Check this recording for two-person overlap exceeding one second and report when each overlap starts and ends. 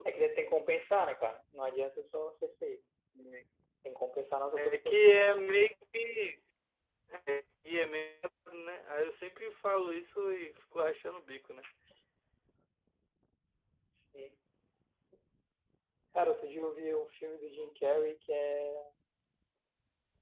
none

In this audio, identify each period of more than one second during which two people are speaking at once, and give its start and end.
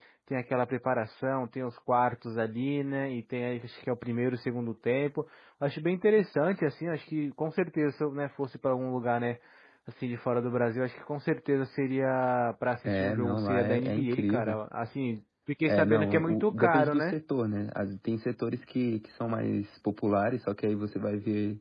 12.8-14.6, 15.7-17.1

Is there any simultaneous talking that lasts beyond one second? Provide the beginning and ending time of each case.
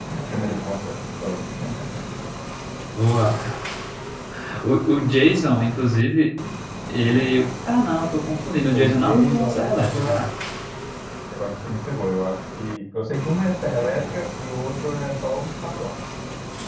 8.7-10.1

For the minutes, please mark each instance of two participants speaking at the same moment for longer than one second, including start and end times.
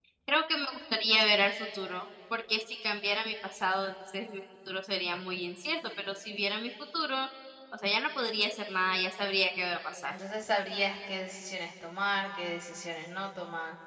none

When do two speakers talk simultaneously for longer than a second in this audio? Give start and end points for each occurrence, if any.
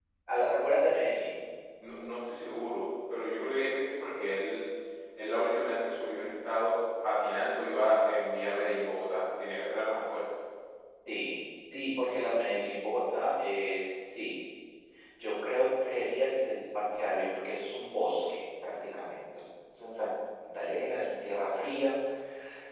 none

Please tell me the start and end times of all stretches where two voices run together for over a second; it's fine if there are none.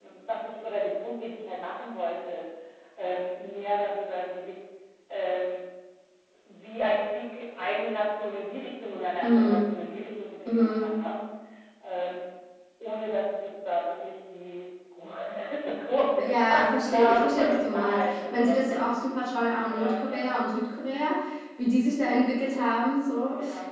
16.2-18.8

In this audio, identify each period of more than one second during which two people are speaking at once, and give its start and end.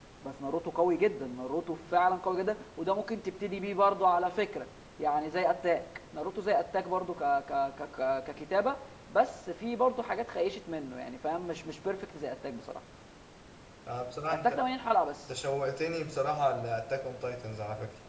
none

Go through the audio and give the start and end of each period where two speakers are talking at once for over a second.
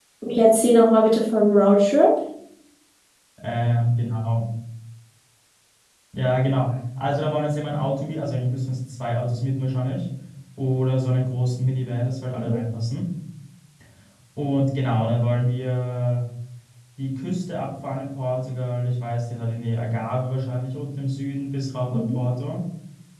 none

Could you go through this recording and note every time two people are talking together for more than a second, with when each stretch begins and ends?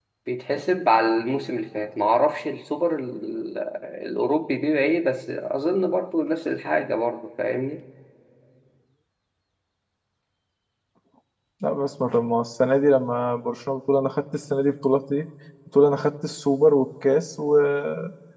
none

